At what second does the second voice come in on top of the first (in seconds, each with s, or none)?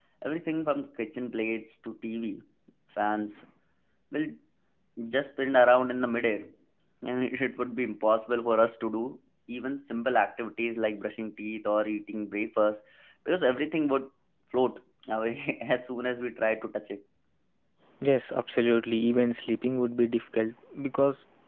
none